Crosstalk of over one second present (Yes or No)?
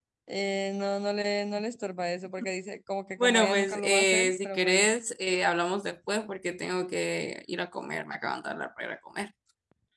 Yes